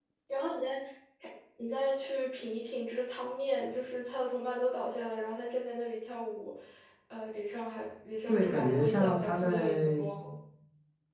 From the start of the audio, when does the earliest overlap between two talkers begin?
8.3 s

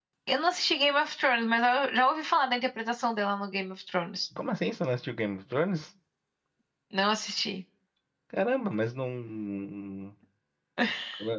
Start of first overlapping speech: none

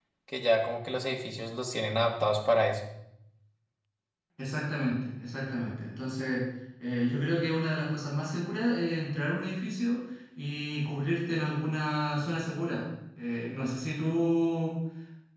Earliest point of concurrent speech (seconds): none

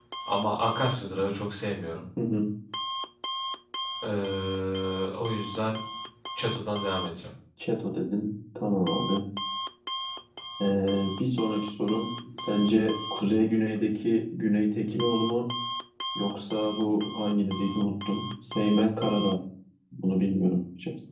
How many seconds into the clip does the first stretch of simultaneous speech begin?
none

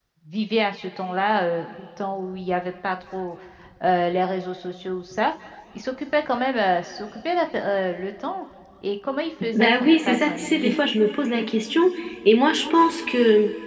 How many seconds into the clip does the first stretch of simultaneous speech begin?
9.5 s

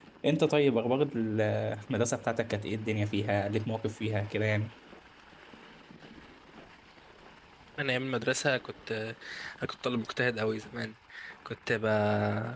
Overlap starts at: none

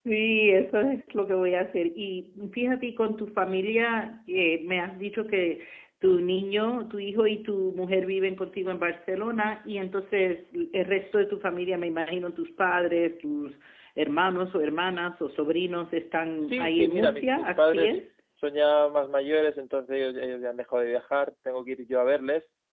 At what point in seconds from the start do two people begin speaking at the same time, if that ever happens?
16.4 s

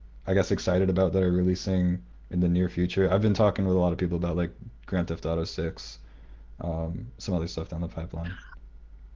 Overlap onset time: none

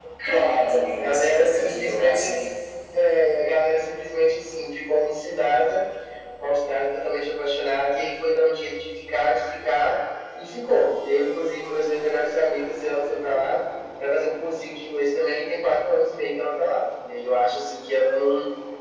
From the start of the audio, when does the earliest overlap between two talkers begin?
0.9 s

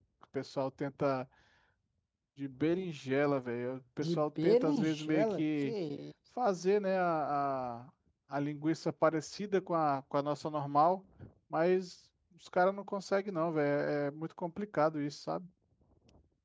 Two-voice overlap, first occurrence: 4.0 s

